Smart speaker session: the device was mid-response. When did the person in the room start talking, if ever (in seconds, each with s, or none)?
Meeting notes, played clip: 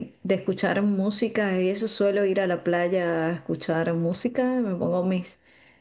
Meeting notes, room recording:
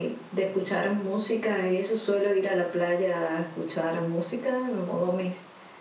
none